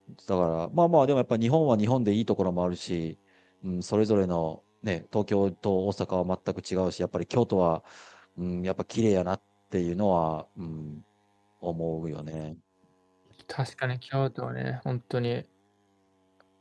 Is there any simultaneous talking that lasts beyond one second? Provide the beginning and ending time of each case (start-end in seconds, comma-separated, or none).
none